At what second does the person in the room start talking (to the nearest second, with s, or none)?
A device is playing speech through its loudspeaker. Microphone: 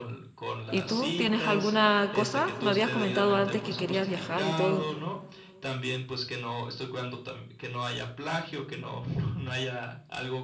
1 s